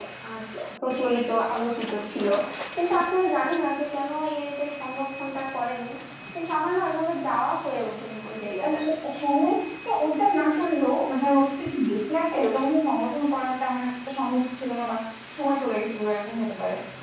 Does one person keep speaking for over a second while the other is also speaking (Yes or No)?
No